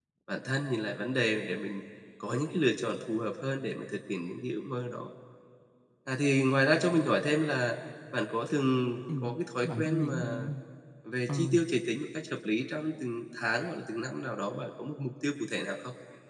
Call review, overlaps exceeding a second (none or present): present